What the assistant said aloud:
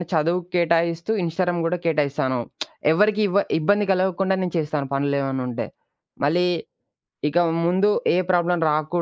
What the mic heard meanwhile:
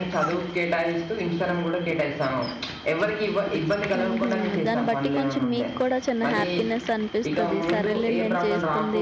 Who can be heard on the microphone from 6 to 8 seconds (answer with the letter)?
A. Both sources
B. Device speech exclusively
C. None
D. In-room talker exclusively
A